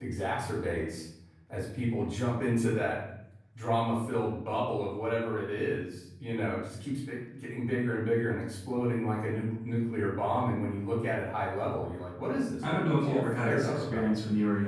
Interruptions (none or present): present